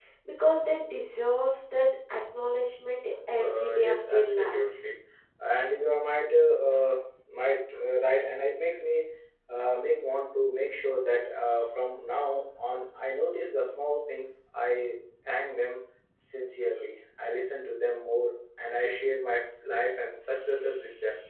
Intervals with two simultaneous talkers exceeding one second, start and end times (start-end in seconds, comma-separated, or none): 3.4-4.8